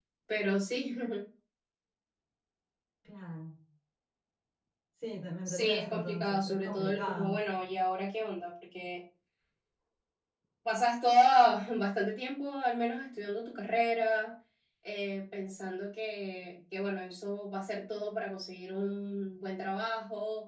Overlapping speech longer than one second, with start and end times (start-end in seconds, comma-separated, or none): 5.5-7.5